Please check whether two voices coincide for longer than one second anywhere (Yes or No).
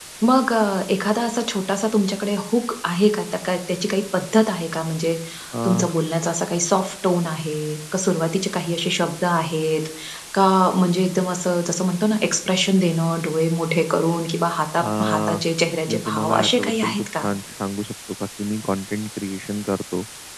Yes